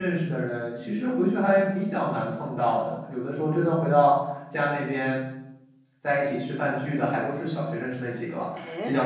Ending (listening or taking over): listening